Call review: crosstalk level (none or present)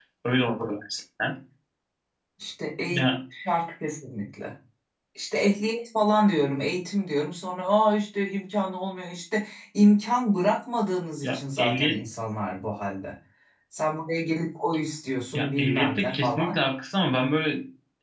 present